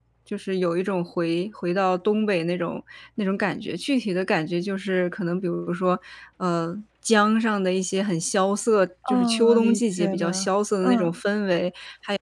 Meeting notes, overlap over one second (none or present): present